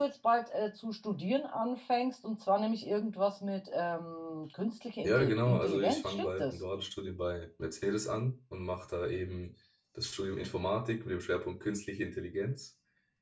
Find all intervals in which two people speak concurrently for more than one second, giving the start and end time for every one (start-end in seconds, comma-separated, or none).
5.0-6.6